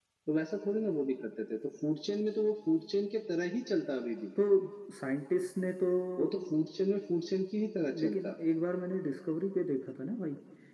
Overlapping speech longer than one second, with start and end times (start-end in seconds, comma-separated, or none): none